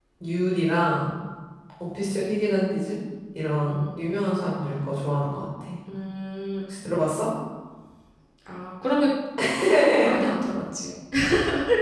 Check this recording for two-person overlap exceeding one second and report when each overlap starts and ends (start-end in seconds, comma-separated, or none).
none